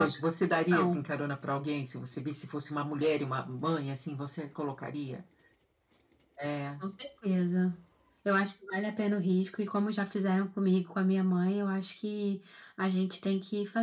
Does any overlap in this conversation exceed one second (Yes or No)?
No